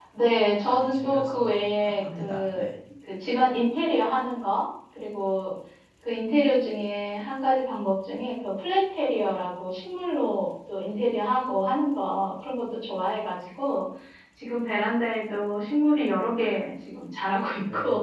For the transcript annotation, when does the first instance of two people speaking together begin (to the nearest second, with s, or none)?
1 s